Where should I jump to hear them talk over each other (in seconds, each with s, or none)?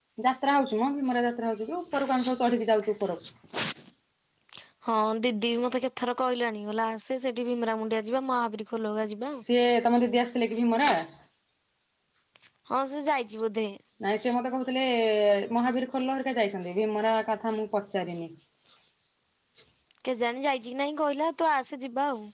none